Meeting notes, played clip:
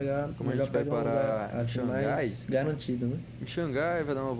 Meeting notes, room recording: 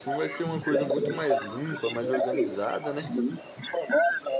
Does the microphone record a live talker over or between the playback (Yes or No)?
Yes